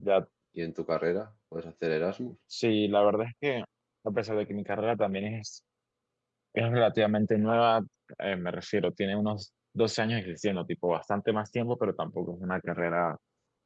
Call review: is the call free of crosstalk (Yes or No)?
Yes